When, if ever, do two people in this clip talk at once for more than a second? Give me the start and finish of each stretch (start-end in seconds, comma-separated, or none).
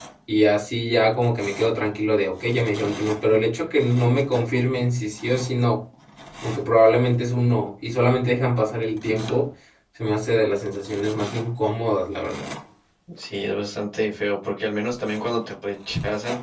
none